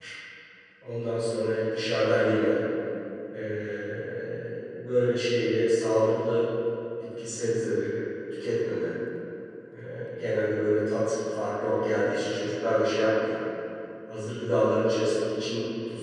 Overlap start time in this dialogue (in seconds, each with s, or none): none